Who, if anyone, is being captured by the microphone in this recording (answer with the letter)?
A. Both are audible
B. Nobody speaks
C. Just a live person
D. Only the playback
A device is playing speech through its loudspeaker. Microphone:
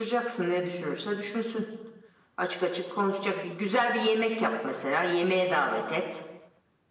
D